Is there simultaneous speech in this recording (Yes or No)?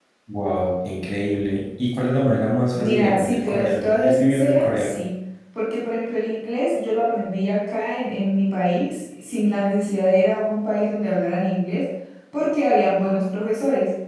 Yes